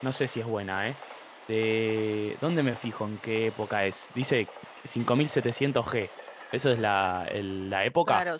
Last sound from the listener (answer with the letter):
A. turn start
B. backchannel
A